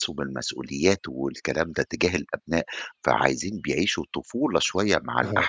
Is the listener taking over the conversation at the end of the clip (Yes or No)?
No